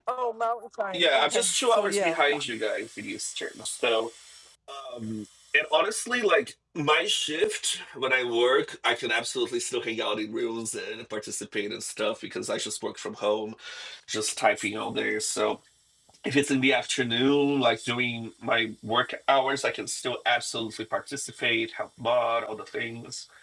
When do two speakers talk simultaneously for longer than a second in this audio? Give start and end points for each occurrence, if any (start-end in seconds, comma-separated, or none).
0.9-2.2